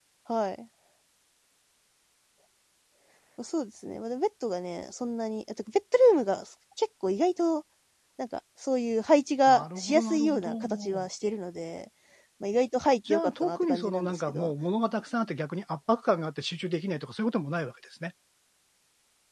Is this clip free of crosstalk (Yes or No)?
No